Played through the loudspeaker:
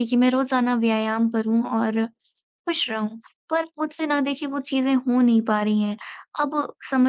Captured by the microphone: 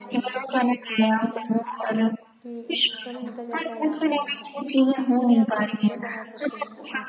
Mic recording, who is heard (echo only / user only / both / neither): both